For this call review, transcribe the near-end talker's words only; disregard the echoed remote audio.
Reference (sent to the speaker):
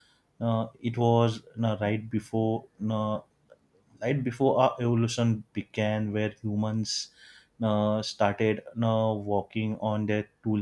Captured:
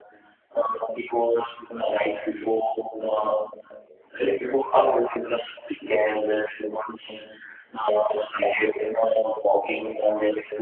none

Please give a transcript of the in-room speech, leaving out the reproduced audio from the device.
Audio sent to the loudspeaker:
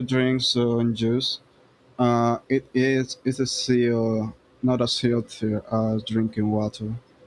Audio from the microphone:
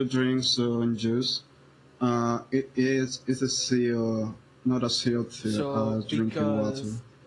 So because

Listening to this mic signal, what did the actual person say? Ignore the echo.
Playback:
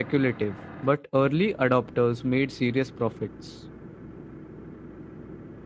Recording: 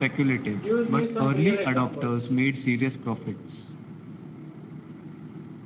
Gives me some real examples.

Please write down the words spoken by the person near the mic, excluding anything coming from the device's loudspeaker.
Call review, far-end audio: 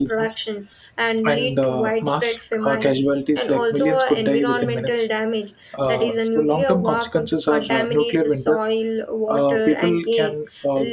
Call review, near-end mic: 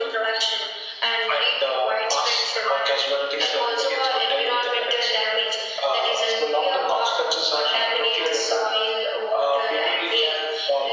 none

